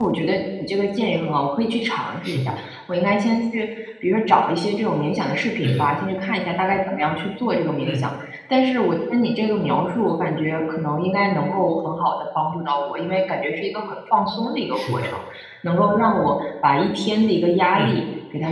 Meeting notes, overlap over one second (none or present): none